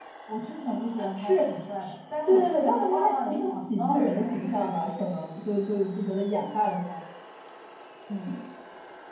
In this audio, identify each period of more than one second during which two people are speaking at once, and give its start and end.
2.2-5.0

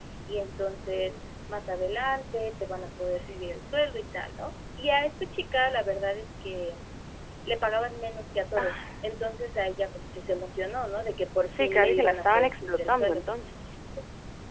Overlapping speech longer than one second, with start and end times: 11.4-13.2

